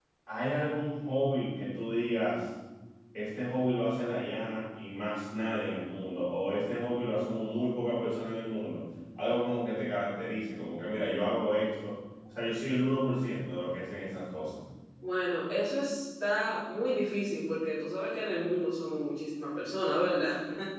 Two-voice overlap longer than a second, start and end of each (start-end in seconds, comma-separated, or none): none